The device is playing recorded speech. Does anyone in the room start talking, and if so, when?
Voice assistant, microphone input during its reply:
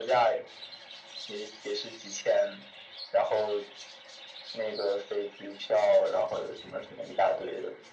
none

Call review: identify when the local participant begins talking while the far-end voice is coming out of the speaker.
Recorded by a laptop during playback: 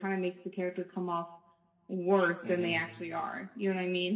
2.4 s

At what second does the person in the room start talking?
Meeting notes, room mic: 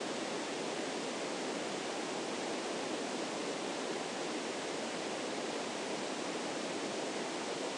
none

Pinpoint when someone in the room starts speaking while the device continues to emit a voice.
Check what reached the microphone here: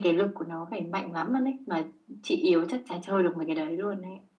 none

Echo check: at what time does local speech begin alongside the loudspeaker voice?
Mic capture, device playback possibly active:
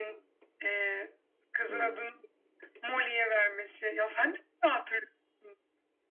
1.7 s

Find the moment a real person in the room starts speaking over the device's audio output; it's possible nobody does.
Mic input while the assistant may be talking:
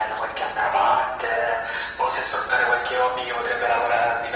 none

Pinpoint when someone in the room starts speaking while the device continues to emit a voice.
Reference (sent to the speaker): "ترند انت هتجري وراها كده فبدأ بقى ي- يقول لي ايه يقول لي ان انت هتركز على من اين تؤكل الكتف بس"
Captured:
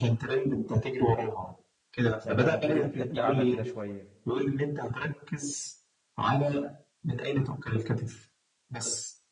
2.2 s

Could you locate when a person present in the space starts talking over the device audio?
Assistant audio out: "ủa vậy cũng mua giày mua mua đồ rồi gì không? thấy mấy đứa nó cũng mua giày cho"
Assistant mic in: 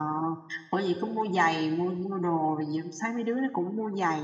none

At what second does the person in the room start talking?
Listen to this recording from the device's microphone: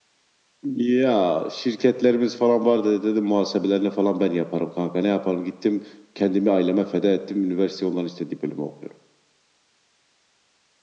none

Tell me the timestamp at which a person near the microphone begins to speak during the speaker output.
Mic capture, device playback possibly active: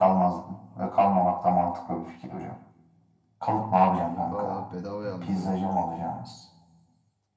4.0 s

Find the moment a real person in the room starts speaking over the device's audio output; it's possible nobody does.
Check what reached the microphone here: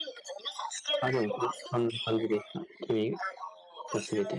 1.0 s

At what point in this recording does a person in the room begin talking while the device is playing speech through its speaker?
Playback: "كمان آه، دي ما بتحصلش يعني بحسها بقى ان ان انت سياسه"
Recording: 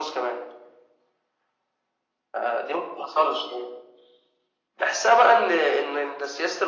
none

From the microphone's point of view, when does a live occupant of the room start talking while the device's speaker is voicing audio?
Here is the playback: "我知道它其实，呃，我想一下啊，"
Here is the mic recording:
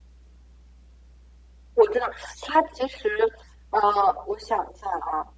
none

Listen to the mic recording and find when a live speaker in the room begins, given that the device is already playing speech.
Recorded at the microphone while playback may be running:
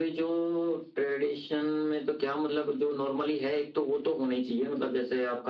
none

